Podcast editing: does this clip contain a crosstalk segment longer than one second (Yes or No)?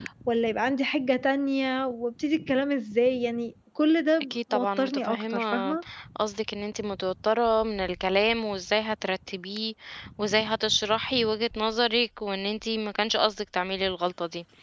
Yes